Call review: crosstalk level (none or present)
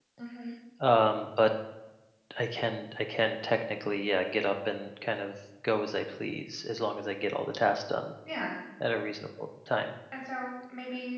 none